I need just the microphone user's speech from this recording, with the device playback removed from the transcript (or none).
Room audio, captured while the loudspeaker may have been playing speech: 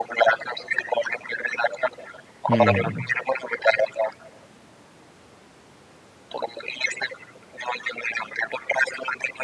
हुँ,